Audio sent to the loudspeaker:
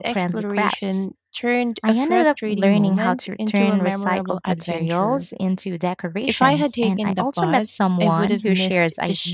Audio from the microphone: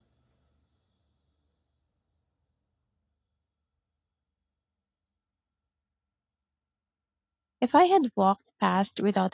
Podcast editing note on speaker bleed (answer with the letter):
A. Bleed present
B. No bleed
B